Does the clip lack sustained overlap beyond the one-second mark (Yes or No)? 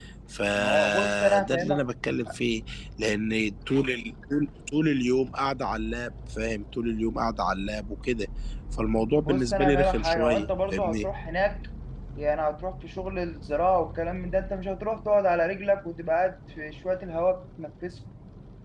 No